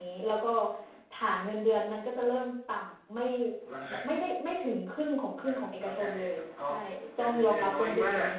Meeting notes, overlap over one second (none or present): present